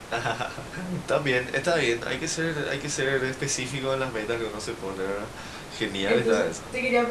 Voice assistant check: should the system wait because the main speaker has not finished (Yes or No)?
No